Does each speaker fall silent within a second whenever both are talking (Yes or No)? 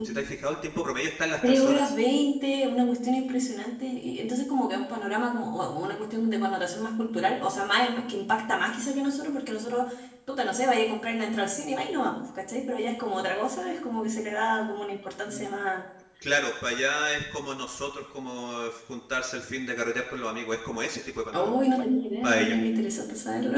Yes